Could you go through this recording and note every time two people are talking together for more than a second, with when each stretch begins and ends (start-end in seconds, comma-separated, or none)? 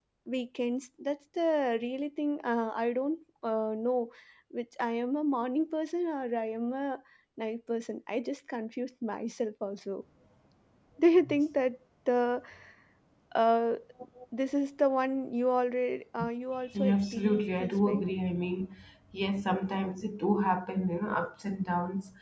16.7-18.0